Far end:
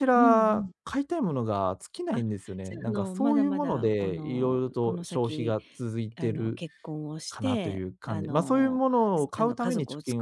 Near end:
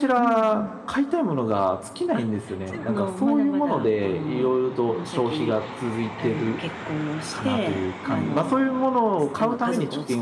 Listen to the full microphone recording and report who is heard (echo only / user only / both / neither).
both